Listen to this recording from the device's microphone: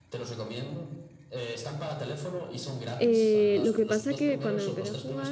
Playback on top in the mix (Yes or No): No